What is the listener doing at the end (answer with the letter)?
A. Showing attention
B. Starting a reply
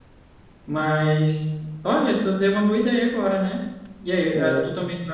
A